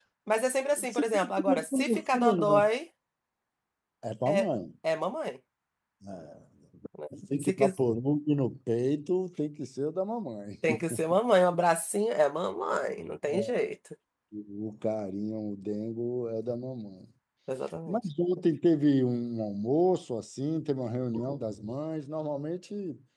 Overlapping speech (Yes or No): Yes